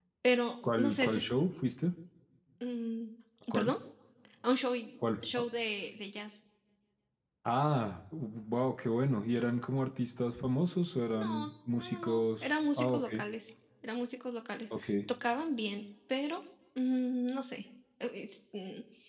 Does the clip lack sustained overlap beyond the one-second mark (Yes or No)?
No